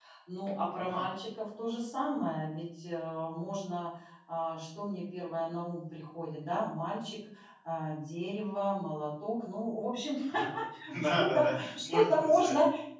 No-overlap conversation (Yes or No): No